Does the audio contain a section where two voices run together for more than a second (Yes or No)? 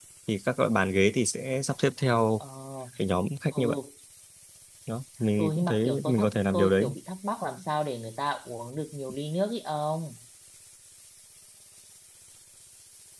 Yes